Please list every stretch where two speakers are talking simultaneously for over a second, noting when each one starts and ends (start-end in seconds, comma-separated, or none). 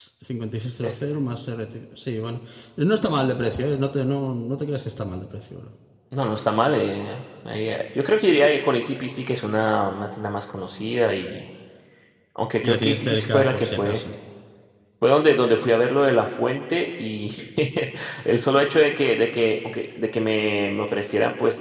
12.6-14.0